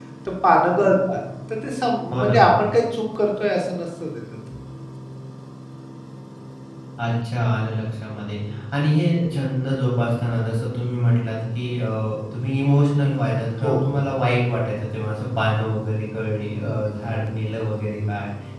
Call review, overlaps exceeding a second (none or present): none